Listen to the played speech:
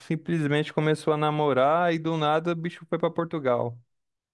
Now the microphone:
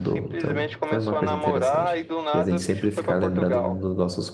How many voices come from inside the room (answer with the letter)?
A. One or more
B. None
A